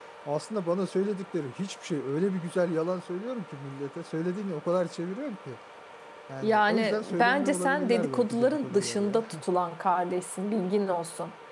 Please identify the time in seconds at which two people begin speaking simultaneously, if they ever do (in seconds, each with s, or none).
6.4 s